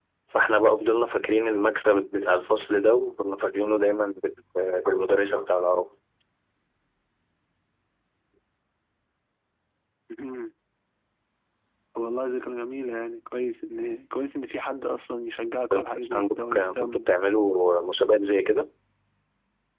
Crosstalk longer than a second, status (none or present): present